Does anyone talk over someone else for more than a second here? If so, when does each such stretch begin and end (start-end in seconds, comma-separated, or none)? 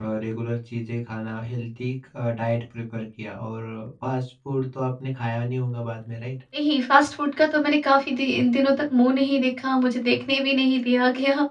none